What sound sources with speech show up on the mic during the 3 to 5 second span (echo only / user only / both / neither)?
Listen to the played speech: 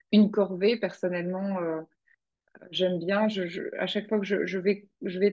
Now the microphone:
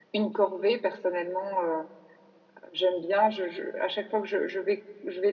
echo only